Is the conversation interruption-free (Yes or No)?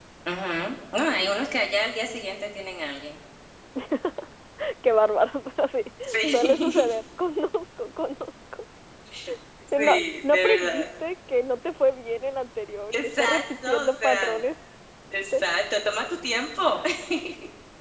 No